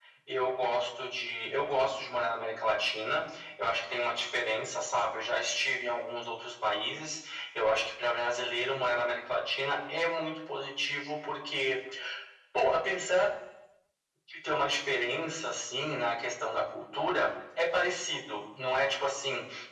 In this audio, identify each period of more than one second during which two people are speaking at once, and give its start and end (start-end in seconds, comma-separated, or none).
none